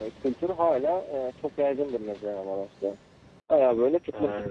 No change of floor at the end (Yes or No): Yes